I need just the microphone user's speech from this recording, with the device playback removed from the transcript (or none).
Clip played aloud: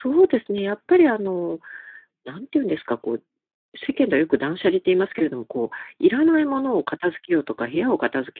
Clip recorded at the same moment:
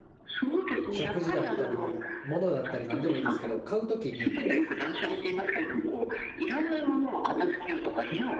食事だったり、物だったり何でもいいですけど、買う時に、